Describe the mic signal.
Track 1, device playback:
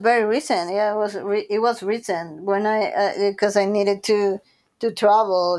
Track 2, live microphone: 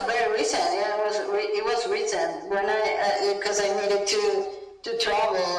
echo only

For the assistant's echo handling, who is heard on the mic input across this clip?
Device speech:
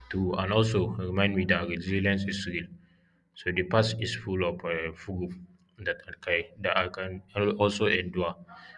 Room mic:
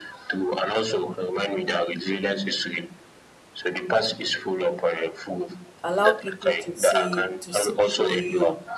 both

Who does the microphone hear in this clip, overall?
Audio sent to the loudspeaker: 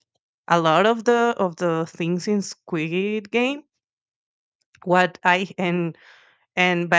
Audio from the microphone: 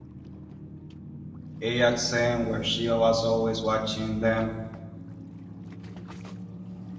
user only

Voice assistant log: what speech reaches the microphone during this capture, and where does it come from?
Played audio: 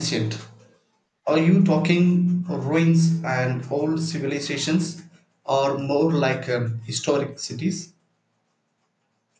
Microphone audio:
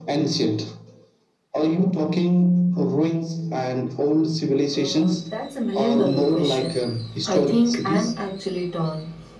both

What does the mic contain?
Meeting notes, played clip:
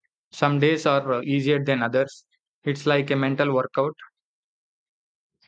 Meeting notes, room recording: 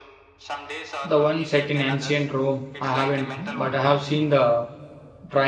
both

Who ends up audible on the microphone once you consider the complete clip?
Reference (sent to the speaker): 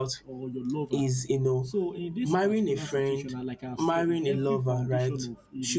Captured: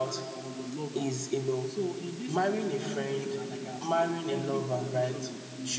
echo only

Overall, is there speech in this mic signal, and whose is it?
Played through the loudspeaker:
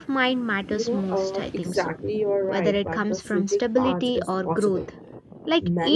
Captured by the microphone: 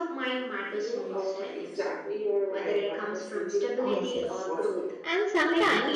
both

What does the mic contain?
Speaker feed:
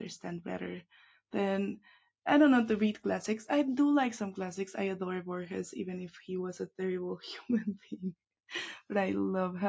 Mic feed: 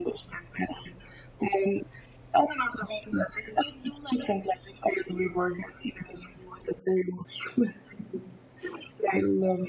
echo only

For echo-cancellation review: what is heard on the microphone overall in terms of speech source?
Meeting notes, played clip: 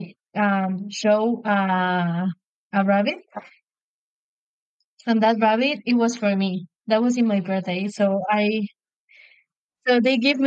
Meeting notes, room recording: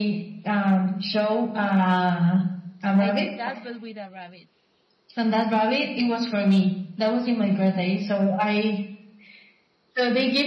both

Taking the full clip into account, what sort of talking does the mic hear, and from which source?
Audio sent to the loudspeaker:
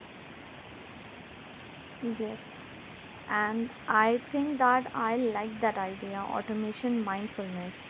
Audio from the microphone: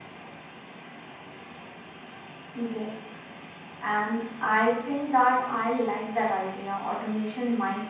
echo only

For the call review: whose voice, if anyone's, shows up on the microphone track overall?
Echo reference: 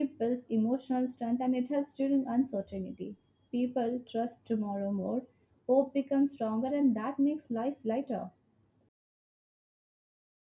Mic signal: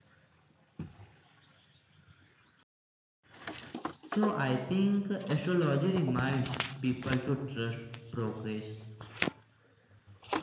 user only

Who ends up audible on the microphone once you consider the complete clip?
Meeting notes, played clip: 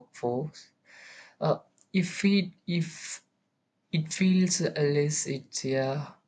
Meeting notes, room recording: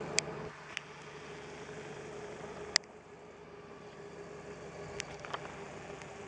neither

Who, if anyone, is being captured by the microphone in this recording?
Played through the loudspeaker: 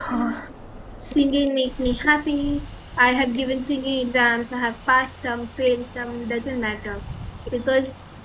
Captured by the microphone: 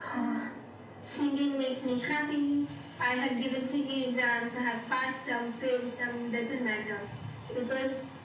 echo only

